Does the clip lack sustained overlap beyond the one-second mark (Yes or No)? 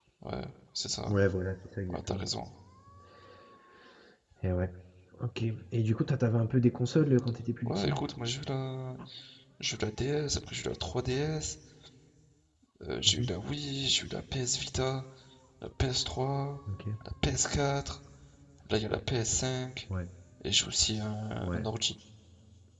Yes